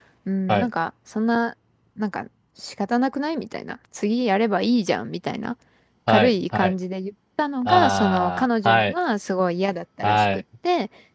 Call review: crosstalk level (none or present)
present